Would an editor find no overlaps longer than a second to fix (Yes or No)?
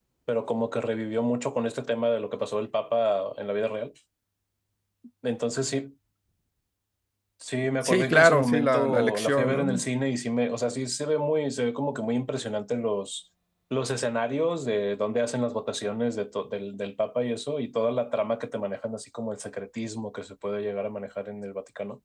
No